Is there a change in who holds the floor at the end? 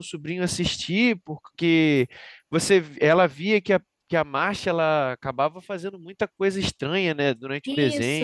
Yes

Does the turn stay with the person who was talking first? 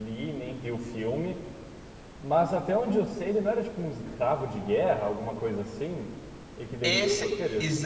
No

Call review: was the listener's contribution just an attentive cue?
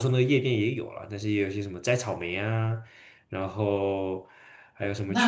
No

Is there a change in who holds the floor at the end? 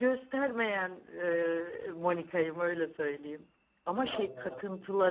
No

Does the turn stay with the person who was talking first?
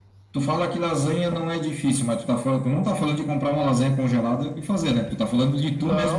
No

